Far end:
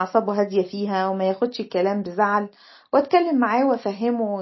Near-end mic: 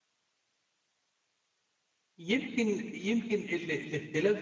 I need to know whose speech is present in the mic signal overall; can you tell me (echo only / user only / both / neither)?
user only